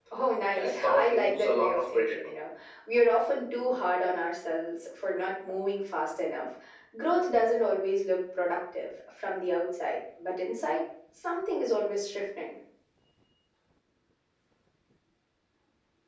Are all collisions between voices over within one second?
No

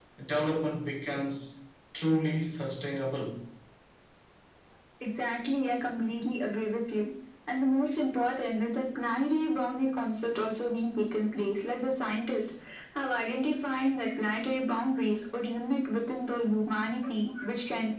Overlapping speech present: No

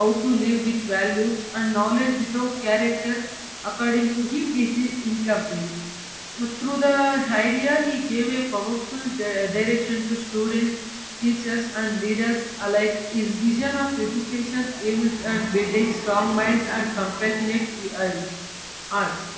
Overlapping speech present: No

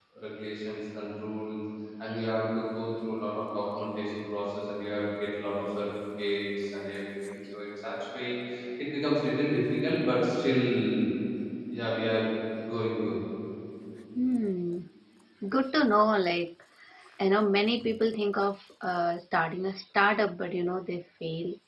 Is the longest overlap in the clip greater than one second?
No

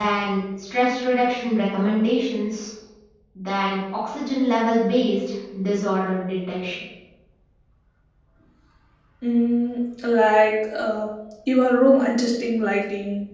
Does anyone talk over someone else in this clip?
No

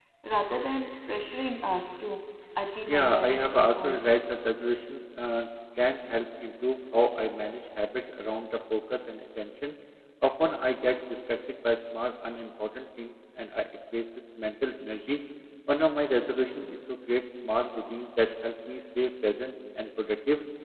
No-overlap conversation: No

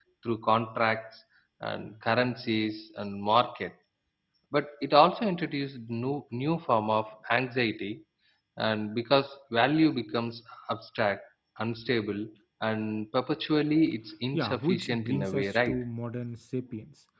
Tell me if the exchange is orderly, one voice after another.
No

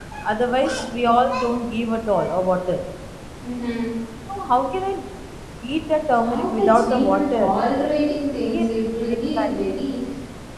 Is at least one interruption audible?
Yes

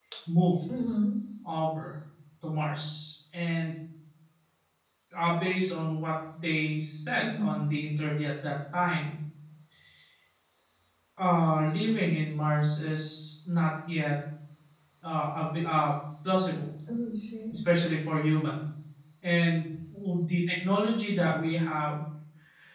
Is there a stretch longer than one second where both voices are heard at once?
No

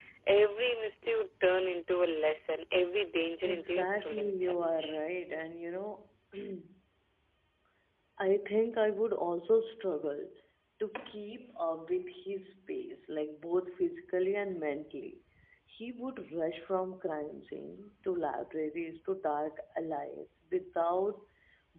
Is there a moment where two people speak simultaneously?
Yes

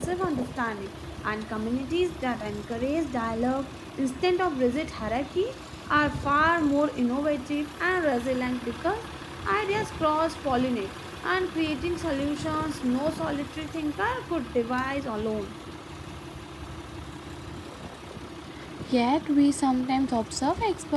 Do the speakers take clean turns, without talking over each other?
Yes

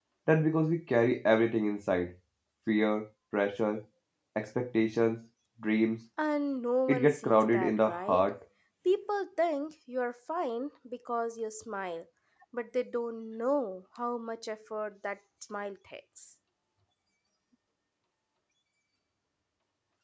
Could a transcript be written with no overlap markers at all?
No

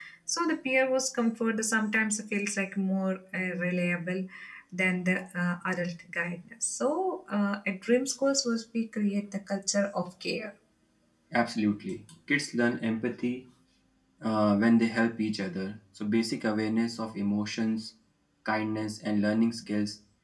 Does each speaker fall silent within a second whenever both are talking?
Yes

